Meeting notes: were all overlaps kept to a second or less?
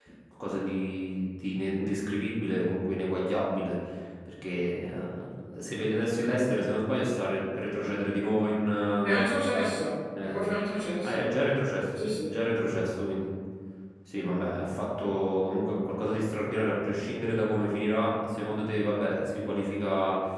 Yes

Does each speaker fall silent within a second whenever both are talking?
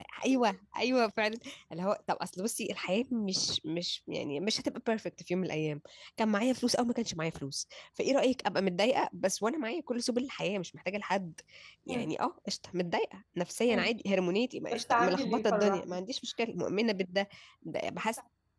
No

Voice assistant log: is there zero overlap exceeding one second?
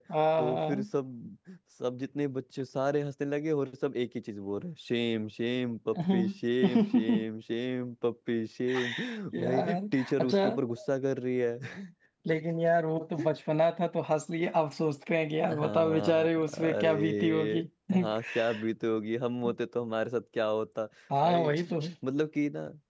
No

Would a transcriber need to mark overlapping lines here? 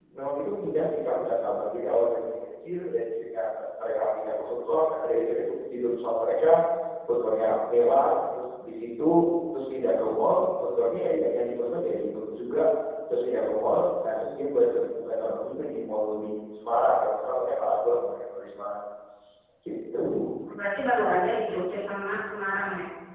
No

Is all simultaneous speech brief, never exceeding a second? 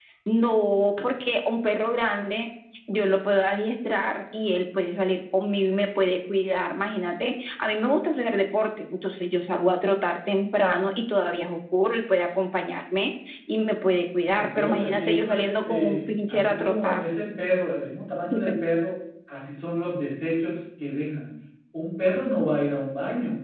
No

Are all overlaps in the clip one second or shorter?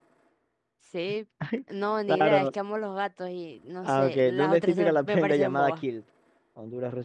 No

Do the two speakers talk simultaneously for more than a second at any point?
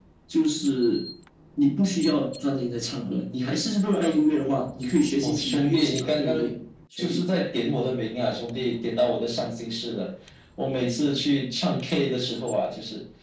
Yes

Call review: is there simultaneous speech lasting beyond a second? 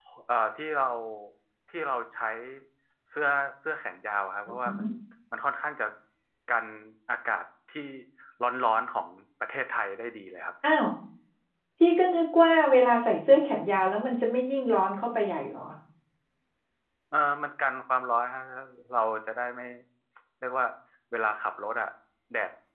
No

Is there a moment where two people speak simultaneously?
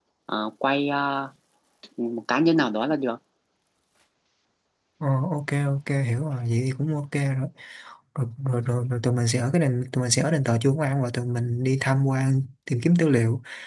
No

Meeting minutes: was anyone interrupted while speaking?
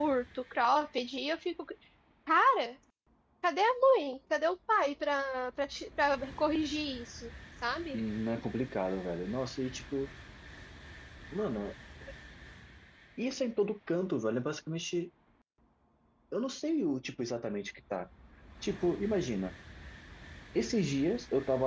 No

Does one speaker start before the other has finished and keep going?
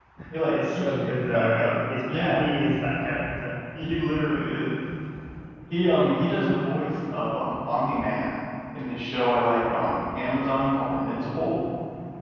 Yes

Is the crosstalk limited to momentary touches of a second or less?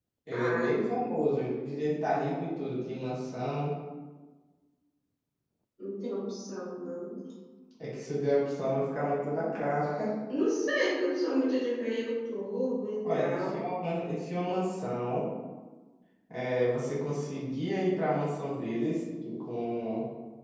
Yes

